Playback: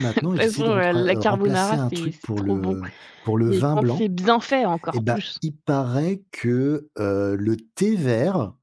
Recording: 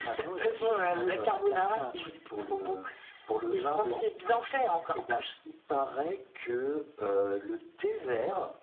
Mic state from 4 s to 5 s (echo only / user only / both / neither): echo only